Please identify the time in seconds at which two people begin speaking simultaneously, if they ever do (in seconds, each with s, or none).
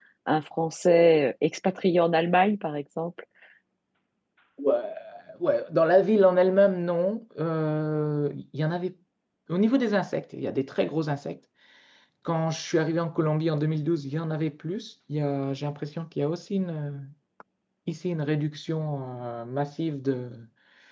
none